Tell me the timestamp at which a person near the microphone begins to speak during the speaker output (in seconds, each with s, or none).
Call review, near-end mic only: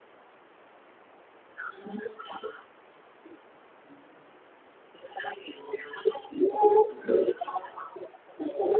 none